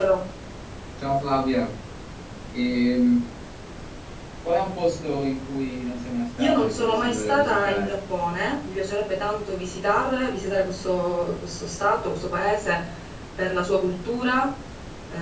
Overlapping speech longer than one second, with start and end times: 6.4-8.0

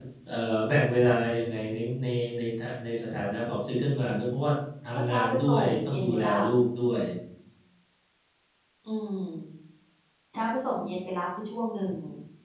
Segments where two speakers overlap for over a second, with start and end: 4.9-6.4

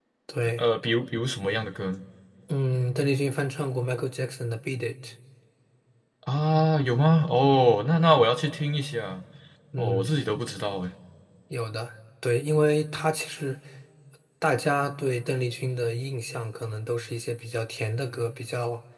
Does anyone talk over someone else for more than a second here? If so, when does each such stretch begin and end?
none

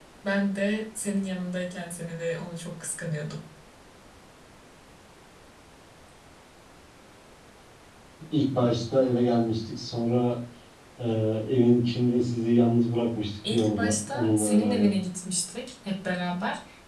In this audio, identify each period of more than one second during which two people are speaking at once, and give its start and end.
13.5-14.9

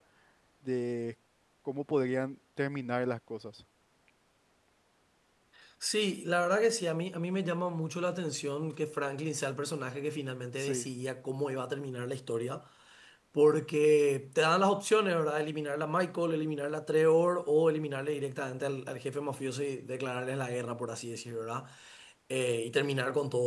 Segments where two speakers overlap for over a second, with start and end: none

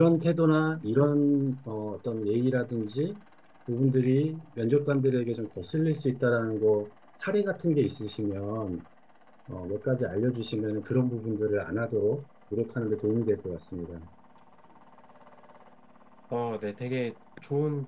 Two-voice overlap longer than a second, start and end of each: none

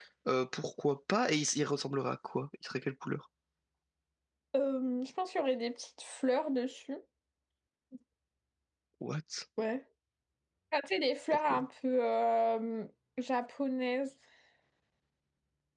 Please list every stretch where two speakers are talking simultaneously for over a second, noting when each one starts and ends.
none

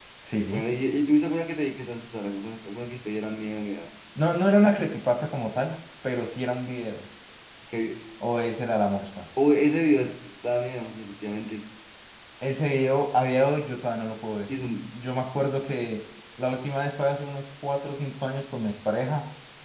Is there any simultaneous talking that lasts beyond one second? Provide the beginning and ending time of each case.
none

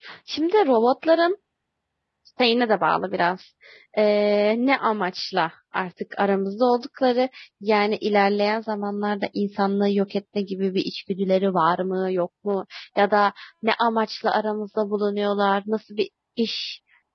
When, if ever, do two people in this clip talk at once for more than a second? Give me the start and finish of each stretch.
none

